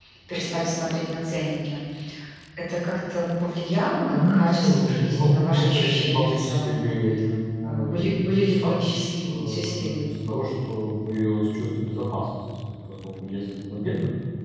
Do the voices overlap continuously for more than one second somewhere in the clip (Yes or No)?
Yes